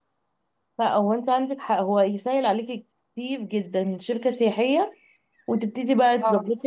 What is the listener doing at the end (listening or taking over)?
listening